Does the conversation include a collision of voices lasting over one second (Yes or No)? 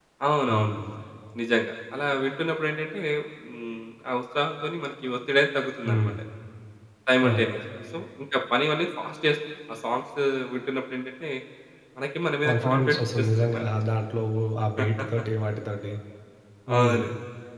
Yes